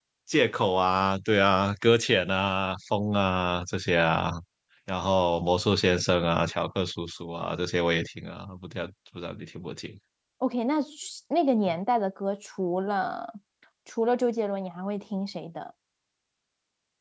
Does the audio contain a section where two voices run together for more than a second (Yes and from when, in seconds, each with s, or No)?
No